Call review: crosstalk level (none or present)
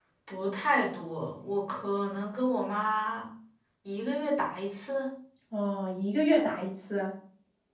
none